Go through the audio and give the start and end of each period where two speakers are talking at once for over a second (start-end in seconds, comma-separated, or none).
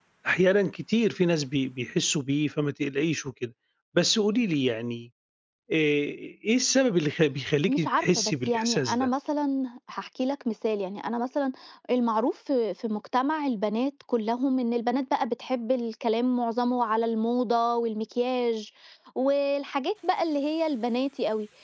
7.6-9.1